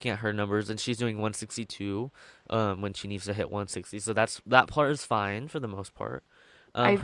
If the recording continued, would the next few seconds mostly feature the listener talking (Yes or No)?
No